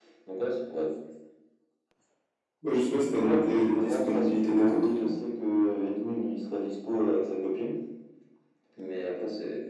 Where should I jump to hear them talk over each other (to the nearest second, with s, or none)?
3 s